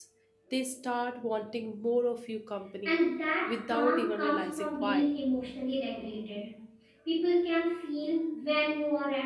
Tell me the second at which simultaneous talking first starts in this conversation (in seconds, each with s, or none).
3.6 s